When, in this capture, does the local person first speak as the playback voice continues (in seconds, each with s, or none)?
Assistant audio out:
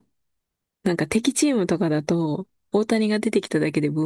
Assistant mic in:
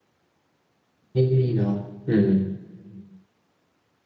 1.1 s